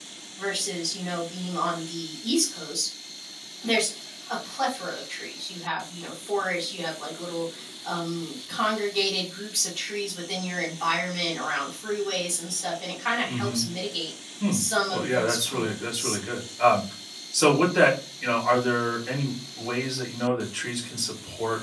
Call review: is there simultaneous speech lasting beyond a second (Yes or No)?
Yes